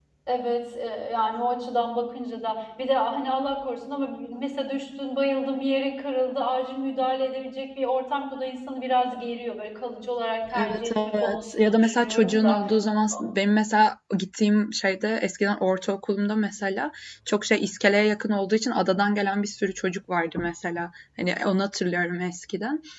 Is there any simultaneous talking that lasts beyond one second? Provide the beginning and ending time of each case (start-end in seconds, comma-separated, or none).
10.7-12.6